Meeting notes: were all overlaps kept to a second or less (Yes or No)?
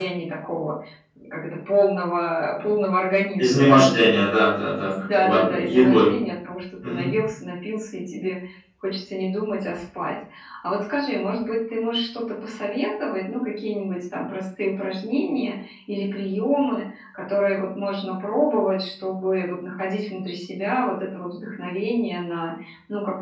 No